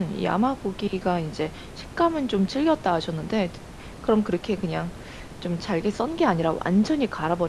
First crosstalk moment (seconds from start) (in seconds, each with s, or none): none